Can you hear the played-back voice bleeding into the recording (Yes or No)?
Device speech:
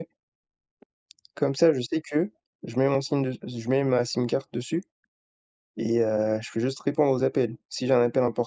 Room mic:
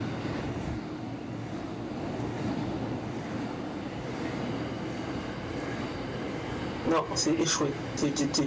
No